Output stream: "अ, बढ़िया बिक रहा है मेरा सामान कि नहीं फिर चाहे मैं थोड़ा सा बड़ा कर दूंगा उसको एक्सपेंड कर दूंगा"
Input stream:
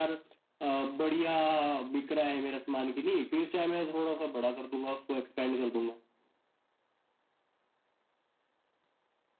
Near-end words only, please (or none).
none